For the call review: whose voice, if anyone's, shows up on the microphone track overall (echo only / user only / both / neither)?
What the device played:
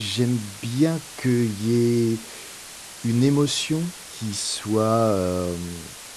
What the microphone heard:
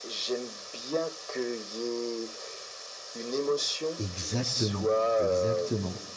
both